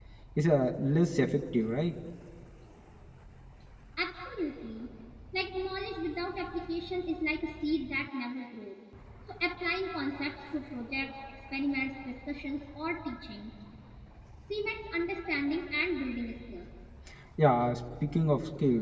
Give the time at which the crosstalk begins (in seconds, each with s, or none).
none